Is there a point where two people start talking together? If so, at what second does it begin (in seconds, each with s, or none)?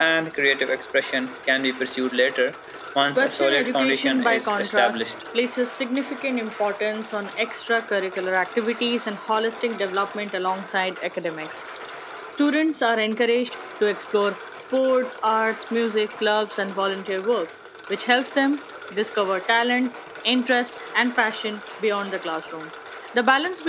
3.2 s